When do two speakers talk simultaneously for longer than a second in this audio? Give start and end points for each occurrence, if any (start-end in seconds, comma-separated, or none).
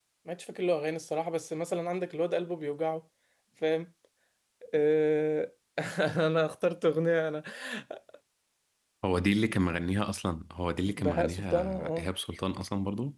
10.9-12.1